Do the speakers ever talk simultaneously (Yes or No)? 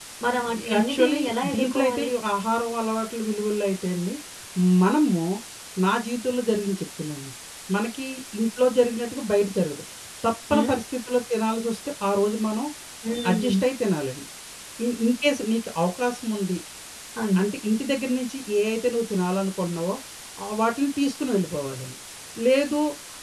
Yes